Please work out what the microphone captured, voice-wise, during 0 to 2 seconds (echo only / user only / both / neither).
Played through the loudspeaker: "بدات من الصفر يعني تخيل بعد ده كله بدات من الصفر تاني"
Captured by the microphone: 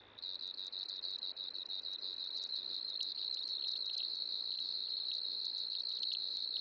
neither